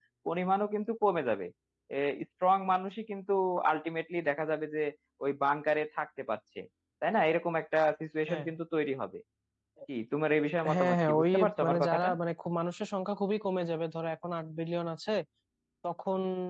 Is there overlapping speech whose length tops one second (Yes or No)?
Yes